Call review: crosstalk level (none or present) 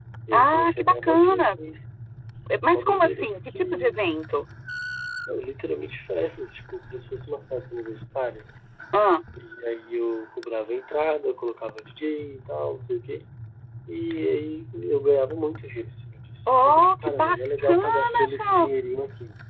present